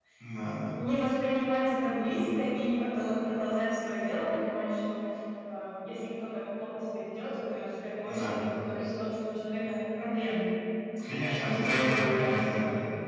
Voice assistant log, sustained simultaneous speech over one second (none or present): present